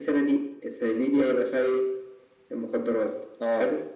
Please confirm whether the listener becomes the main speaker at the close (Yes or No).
No